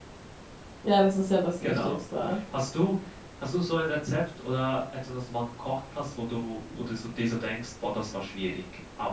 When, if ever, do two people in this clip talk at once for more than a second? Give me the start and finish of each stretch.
none

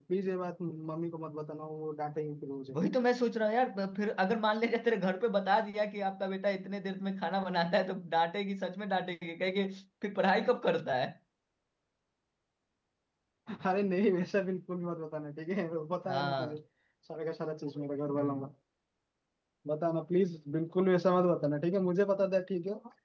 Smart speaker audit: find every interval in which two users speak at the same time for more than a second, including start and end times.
none

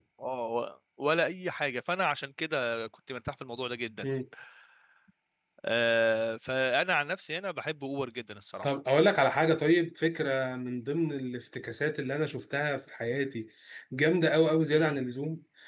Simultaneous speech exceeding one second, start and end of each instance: none

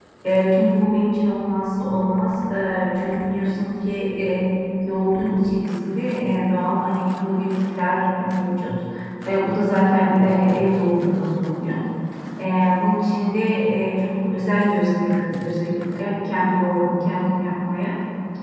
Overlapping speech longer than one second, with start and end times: none

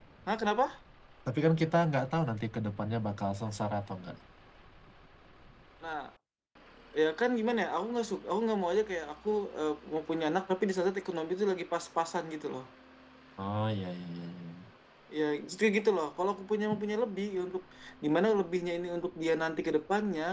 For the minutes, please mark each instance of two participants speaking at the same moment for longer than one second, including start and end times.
none

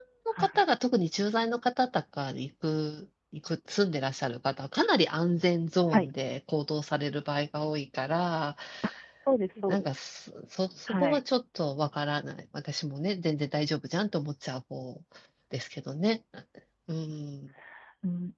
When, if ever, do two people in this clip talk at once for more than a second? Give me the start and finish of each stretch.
none

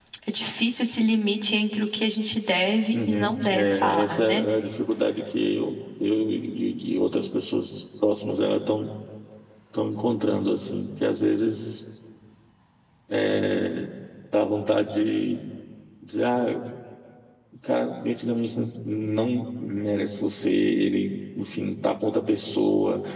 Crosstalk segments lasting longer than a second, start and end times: 2.9-4.4

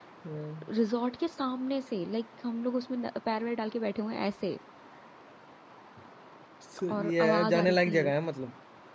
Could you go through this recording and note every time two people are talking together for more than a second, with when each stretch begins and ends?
6.9-8.1

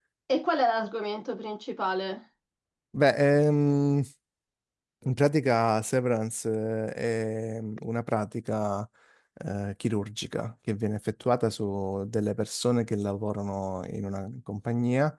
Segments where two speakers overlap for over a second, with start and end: none

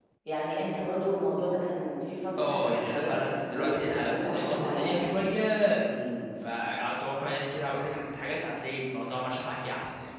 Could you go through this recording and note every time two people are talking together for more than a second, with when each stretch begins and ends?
2.4-5.0

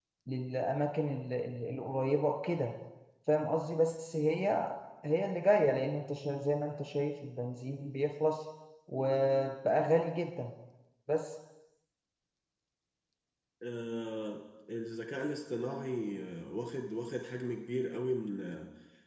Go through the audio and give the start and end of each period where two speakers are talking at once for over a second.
none

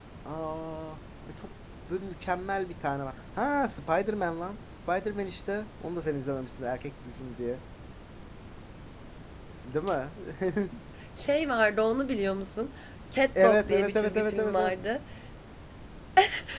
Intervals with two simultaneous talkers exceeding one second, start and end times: 13.4-14.7

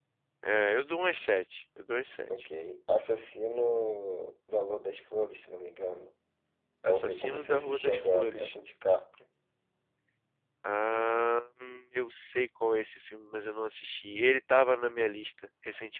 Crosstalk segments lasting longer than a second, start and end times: 6.8-8.5

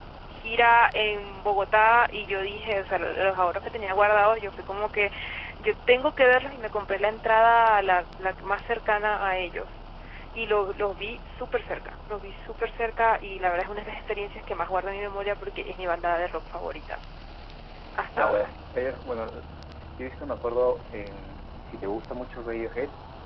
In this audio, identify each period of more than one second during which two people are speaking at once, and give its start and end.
none

